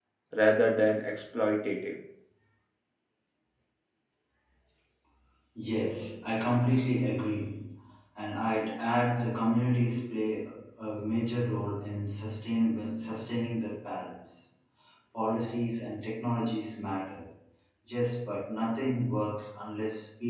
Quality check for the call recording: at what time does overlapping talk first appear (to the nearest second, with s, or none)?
none